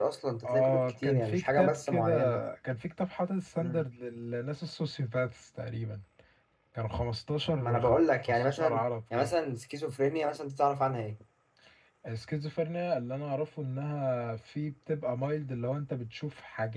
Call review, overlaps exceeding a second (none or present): present